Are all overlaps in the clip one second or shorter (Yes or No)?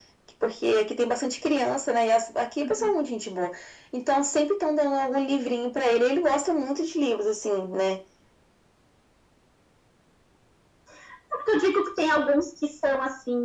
Yes